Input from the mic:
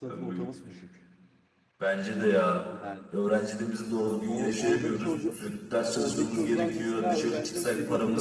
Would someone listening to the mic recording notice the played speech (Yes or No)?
Yes